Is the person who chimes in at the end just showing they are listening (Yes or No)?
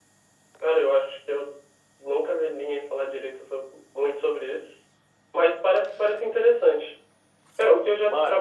Yes